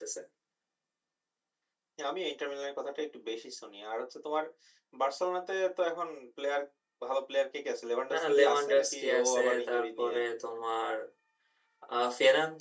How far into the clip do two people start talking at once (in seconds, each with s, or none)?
8.1 s